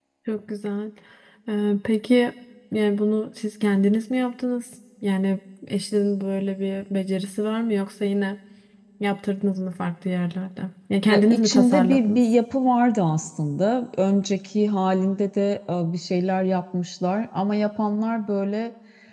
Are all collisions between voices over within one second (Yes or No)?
No